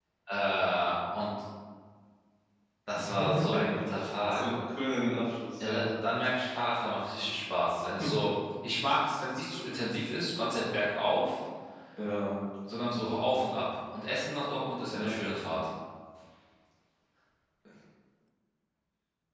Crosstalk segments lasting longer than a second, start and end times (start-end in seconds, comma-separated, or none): none